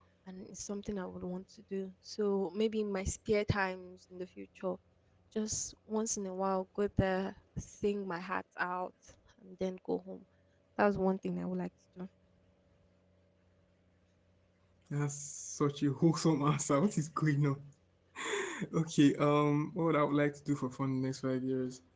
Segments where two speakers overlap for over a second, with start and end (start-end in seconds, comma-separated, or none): none